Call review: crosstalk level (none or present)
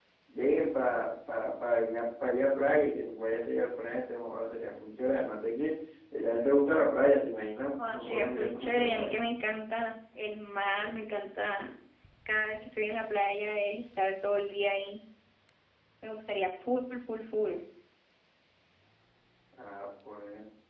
present